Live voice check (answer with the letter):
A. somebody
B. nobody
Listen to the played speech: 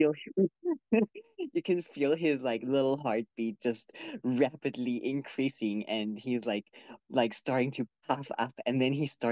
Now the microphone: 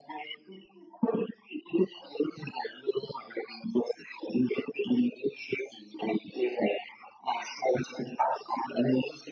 B